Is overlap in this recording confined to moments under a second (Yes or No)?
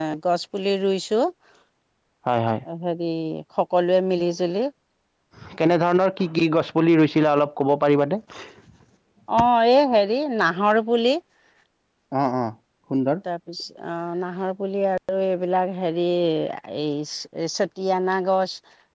Yes